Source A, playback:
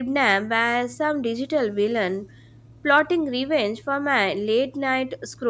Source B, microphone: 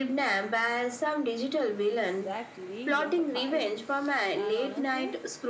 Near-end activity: present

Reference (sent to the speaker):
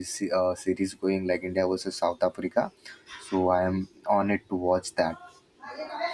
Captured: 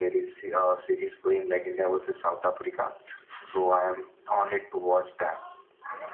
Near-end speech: none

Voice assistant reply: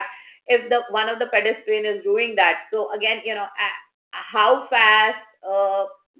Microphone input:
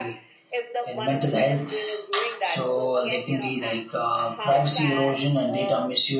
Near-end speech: present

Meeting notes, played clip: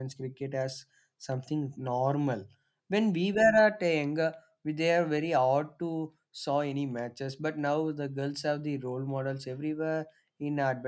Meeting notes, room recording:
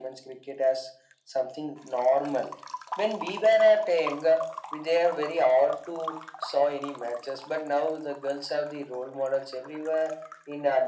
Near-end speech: none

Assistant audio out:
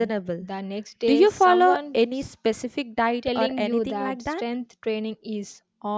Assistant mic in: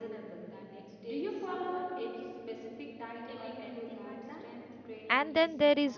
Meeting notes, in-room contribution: present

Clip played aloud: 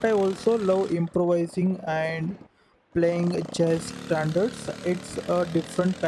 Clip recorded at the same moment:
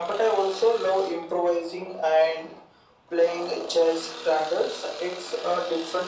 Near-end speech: none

